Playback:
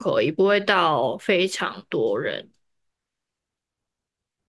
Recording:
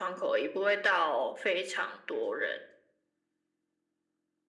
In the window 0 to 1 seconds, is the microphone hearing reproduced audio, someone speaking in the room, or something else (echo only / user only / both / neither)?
echo only